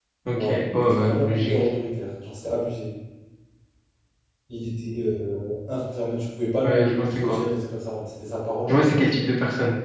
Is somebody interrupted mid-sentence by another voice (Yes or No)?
Yes